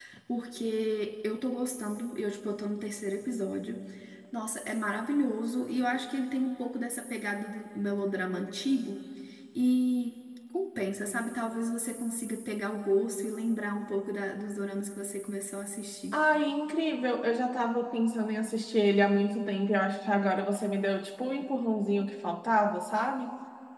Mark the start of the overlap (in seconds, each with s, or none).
none